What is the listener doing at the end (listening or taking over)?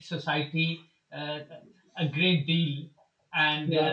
listening